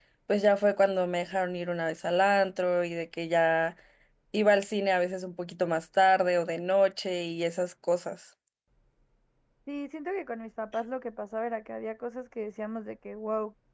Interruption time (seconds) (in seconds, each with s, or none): none